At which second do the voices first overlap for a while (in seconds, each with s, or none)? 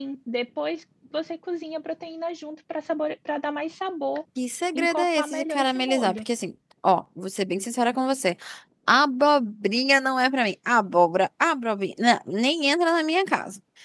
4.7 s